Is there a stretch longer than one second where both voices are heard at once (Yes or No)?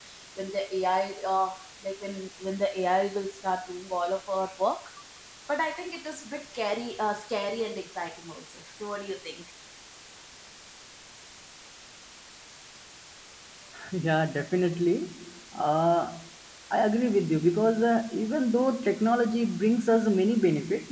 No